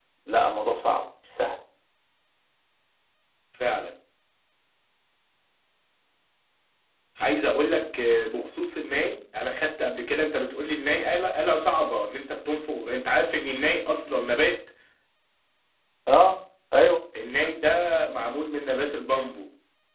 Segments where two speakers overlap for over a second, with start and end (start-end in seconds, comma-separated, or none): none